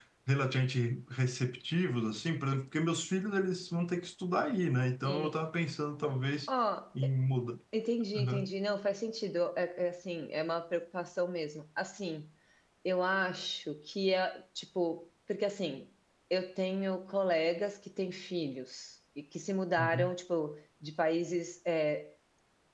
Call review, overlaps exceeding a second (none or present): none